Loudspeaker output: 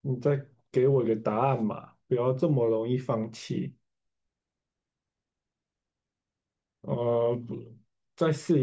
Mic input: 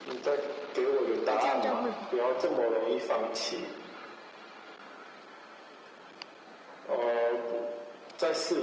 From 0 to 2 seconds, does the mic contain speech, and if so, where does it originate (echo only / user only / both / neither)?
both